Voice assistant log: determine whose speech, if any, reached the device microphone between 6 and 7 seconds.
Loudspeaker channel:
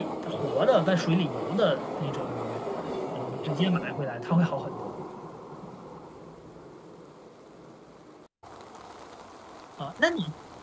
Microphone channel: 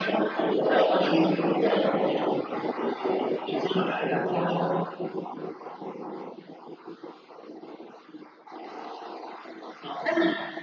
neither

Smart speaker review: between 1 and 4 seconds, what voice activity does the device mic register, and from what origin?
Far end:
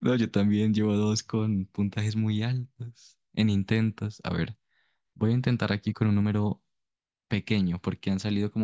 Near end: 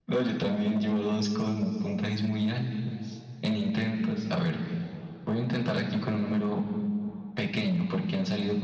echo only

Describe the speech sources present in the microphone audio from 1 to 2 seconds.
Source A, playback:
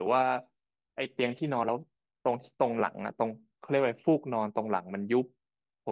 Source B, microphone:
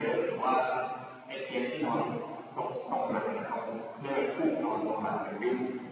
echo only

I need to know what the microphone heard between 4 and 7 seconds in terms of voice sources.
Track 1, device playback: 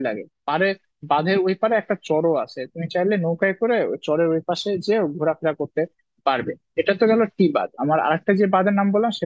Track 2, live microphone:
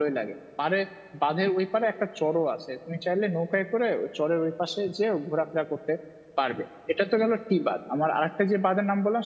echo only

